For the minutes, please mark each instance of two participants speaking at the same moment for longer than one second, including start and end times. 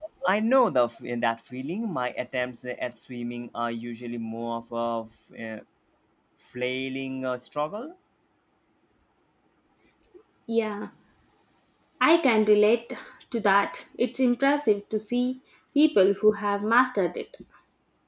none

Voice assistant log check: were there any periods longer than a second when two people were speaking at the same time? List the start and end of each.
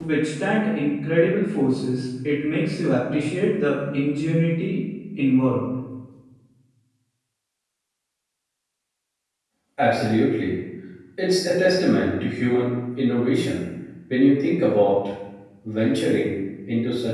none

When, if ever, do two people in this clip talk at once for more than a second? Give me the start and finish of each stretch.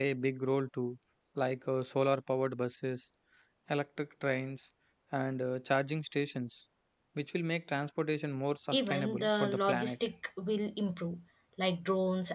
8.7-10.0

